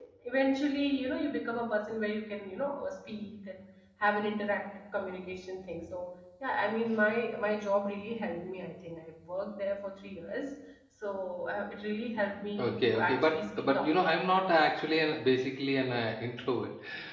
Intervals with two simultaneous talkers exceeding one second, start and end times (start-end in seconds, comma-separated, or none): 12.6-13.9